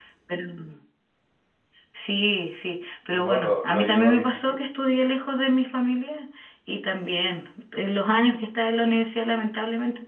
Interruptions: present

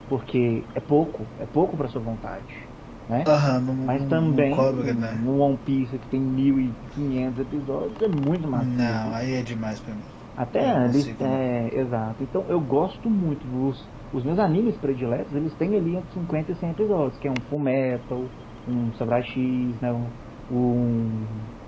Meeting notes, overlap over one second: present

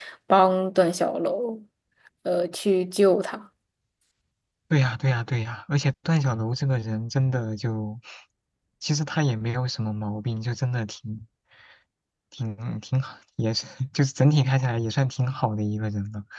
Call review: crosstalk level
none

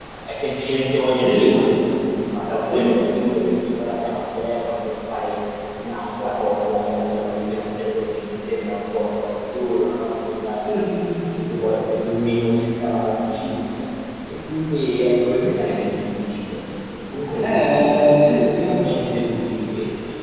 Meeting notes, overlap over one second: present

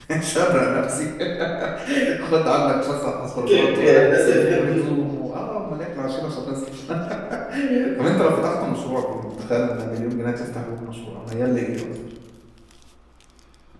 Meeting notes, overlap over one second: present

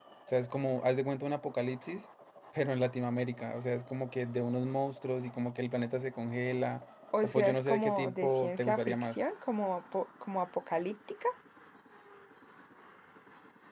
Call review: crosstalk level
present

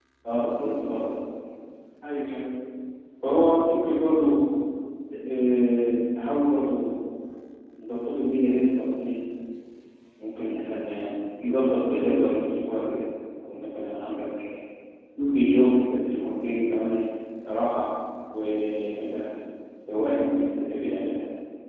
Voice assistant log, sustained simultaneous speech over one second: none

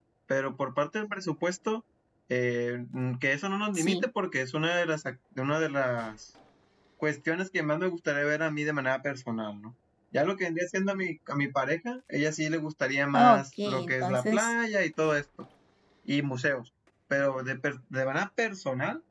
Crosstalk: present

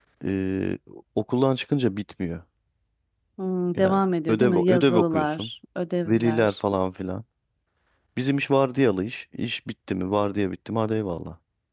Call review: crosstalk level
present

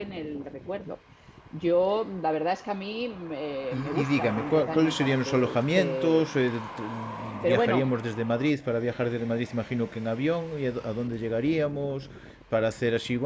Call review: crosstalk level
present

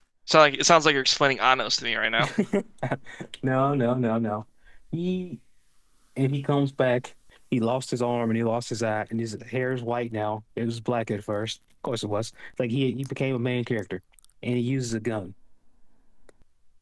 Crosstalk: none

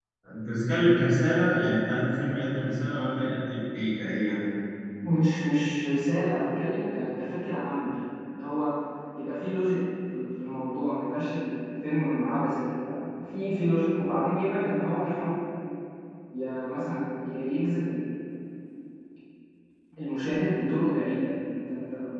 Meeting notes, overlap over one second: none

